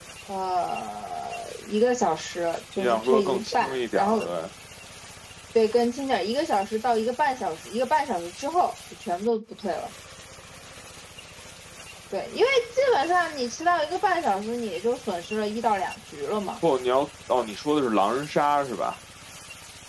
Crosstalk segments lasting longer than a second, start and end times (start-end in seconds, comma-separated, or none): 2.8-4.3